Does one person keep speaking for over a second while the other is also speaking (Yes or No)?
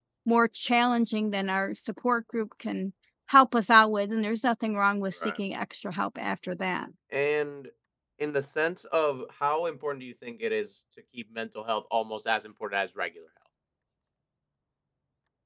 No